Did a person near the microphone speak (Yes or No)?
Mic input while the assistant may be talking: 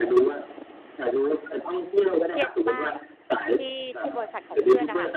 Yes